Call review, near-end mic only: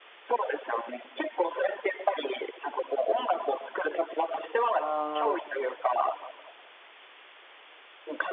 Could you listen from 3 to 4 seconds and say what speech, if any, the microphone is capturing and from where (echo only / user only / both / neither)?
echo only